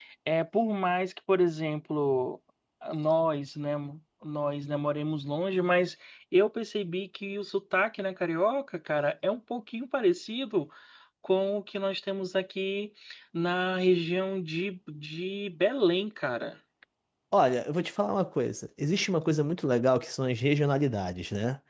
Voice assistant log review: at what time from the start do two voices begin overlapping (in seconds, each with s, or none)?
none